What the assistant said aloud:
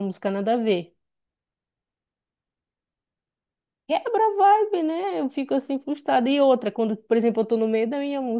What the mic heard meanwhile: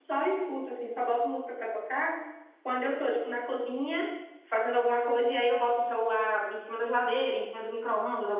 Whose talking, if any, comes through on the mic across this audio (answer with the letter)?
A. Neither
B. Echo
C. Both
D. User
D